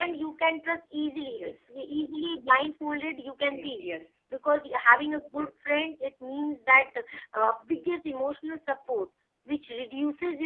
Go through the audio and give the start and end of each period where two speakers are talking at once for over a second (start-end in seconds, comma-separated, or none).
none